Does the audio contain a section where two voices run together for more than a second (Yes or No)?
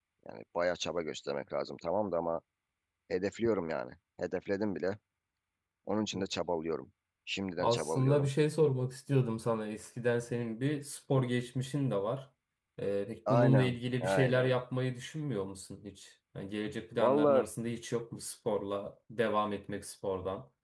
Yes